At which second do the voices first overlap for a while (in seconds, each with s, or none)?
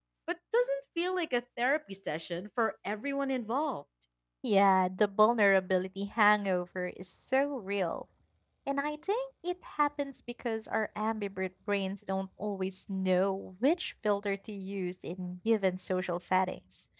none